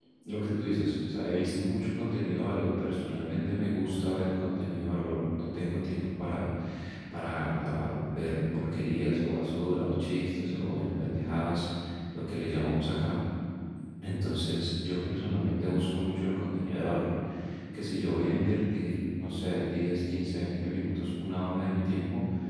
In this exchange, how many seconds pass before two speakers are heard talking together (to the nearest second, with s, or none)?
none